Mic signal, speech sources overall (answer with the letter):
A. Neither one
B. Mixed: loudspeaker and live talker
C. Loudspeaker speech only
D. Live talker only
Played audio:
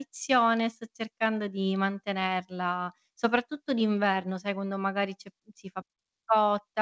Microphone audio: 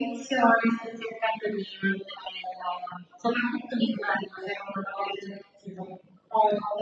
C